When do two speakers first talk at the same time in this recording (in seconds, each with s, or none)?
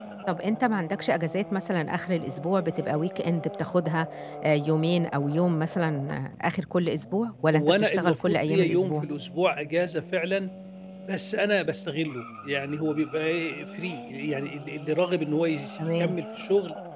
7.5 s